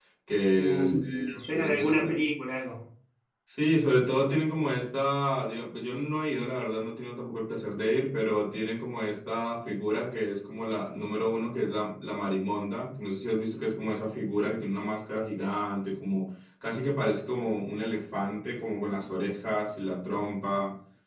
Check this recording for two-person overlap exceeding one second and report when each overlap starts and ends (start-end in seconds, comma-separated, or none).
0.6-2.2